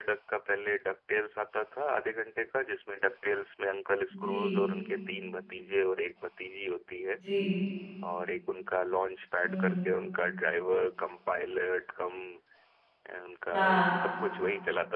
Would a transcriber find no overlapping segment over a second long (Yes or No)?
Yes